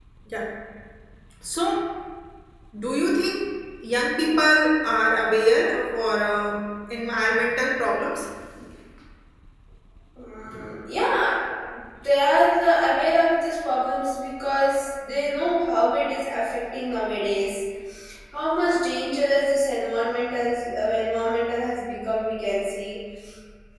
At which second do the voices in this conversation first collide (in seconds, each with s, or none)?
none